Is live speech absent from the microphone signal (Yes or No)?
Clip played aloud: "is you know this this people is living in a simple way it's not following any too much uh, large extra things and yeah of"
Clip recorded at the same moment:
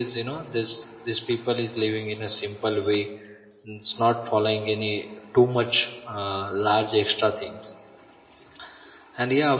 Yes